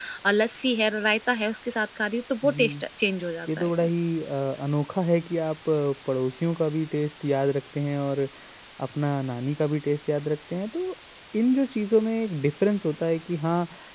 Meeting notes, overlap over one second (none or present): none